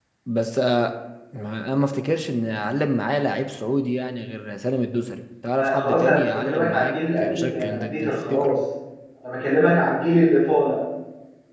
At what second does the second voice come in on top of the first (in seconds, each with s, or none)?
5.6 s